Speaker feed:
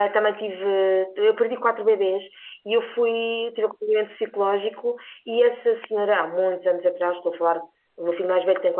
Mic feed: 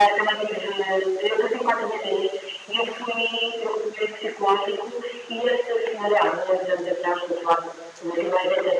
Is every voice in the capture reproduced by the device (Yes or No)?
Yes